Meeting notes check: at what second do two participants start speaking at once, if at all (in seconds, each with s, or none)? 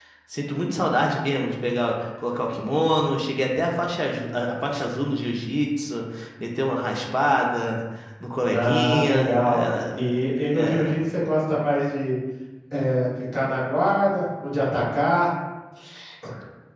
8.5 s